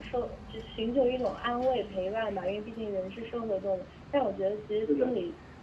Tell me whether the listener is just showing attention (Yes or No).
Yes